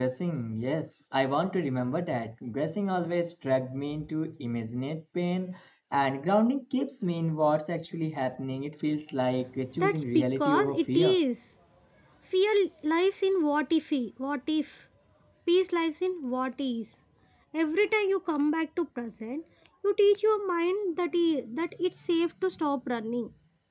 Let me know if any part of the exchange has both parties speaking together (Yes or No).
Yes